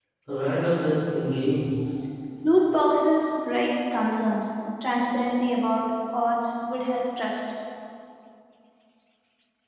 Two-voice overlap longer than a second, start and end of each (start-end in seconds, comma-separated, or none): none